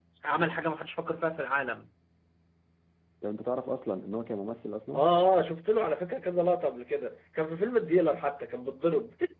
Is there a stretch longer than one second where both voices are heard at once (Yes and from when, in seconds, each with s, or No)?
No